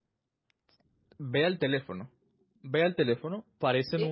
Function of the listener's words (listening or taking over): listening